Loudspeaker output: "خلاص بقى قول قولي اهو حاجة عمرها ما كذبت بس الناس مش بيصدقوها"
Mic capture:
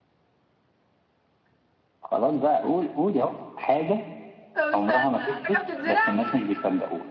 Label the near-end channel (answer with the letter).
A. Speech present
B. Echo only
A